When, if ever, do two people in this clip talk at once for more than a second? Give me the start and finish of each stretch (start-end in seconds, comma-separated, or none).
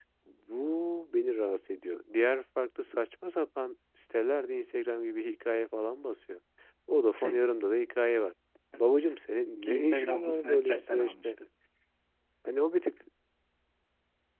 9.6-11.3